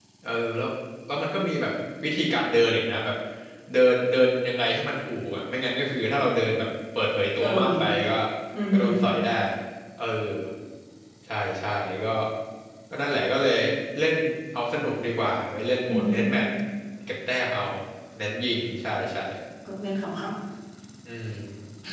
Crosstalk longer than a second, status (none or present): none